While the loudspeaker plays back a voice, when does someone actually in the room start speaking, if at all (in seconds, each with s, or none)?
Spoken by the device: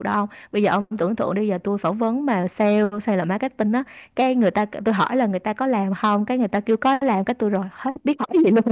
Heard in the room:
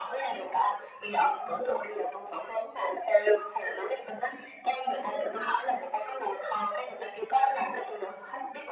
none